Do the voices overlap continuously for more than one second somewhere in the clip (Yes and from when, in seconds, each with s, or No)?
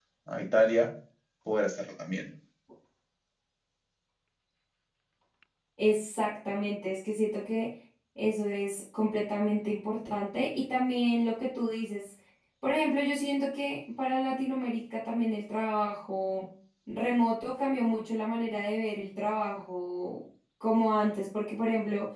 No